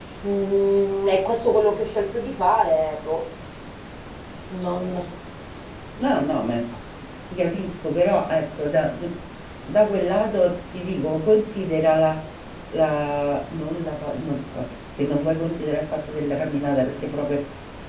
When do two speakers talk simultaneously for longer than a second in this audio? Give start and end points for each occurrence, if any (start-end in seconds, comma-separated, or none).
none